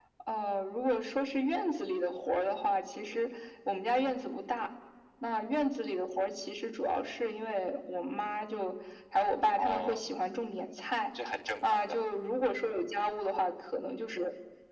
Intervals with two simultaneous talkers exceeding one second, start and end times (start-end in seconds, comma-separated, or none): none